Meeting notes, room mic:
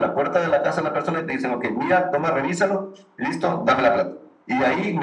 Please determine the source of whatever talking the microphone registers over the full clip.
echo only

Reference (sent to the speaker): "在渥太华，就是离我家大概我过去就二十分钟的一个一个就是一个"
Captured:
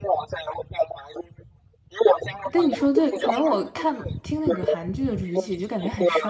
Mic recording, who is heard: both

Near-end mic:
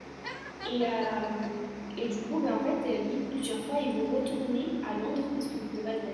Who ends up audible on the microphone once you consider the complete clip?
user only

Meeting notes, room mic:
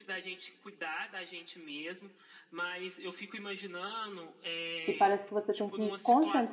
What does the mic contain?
both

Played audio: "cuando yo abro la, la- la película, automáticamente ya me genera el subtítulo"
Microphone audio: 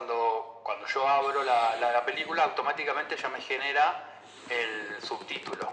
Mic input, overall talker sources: echo only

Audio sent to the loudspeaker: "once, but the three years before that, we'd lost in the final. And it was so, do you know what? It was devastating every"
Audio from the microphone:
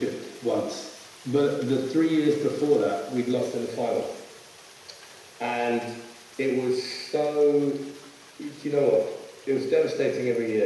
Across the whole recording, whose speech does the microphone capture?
echo only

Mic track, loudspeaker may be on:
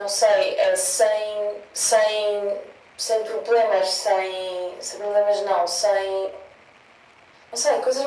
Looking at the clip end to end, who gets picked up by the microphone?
echo only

